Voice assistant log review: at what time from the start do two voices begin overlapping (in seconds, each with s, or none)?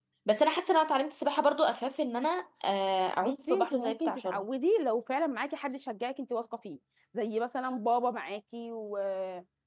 3.2 s